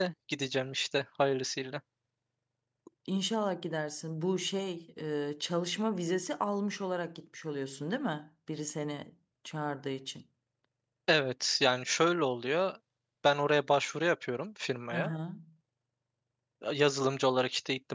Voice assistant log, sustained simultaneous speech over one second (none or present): none